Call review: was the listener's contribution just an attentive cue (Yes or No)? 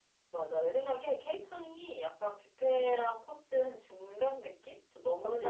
Yes